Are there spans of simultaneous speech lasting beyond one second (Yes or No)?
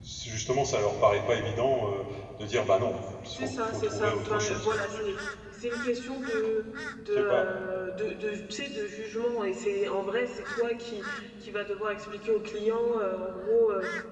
Yes